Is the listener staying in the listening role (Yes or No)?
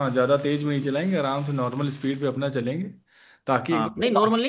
No